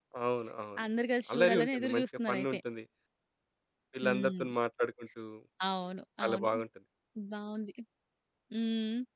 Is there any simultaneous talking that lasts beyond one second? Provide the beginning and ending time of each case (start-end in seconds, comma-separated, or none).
1.3-2.6